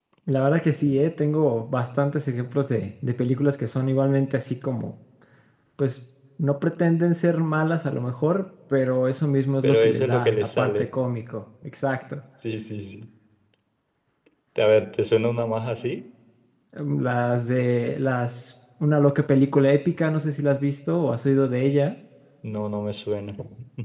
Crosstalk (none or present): present